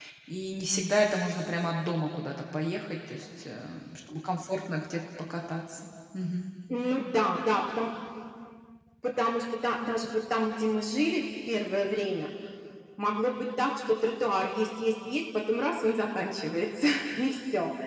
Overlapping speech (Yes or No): No